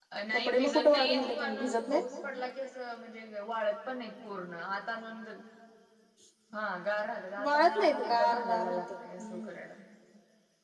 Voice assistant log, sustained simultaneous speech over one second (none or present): present